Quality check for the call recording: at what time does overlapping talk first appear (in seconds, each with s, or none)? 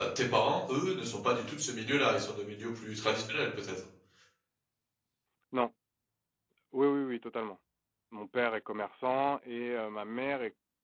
none